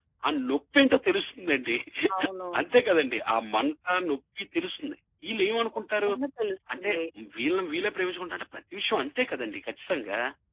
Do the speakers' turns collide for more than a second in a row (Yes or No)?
No